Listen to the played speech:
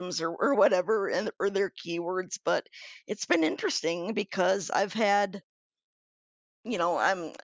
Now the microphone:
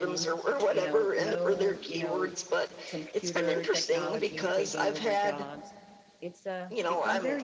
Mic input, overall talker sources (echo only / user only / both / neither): both